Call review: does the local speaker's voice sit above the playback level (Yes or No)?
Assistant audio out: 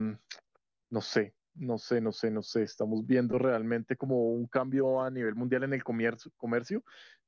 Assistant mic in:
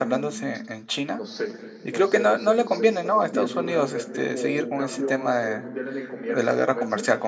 Yes